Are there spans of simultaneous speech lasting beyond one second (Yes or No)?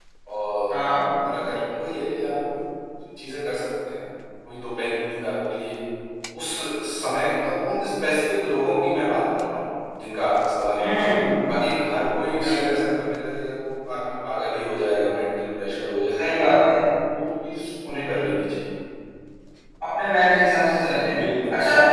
No